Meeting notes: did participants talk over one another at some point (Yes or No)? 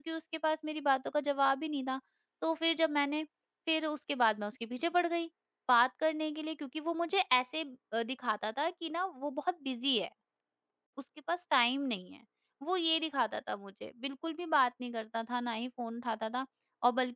No